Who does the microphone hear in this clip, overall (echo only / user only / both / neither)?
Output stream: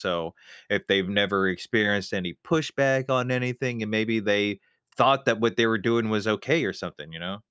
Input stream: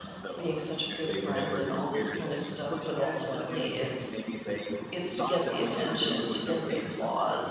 both